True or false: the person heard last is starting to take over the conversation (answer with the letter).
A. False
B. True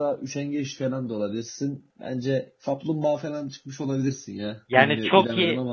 B